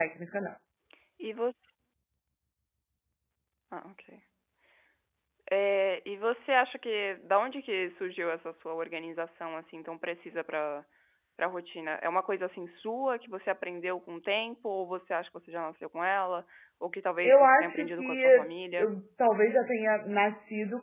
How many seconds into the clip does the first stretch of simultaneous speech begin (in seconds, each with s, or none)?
17.2 s